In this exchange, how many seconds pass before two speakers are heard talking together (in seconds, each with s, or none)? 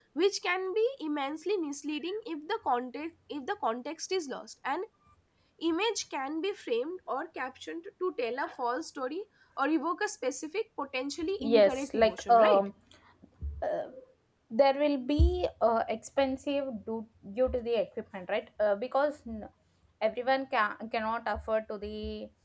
11.4 s